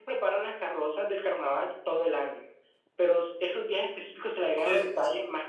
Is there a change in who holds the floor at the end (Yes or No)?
No